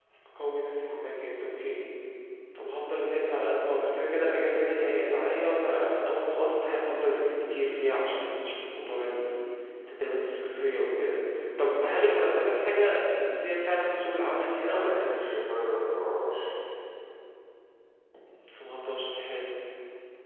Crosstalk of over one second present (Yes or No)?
No